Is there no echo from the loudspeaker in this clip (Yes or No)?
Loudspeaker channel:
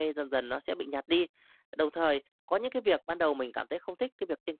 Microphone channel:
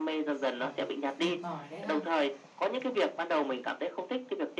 No